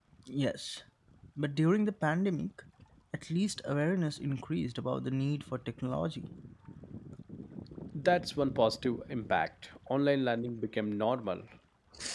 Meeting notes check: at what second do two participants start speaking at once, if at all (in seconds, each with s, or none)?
none